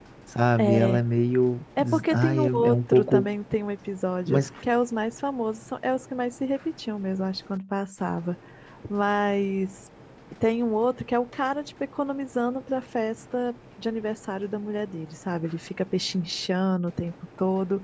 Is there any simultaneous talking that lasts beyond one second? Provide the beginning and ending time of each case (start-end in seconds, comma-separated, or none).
1.8-3.3